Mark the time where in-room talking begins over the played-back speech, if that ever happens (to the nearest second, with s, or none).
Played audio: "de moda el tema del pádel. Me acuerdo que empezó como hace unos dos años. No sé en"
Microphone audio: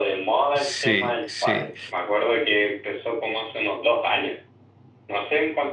1 s